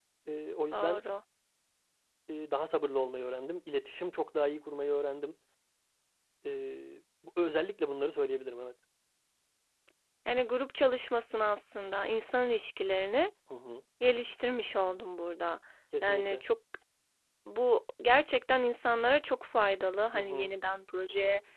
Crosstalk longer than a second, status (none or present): none